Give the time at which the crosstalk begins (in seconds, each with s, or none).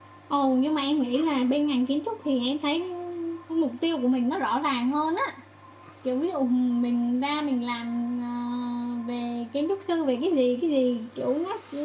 none